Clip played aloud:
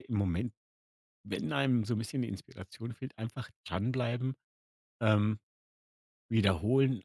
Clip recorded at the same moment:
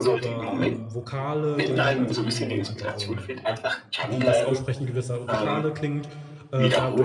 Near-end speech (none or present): present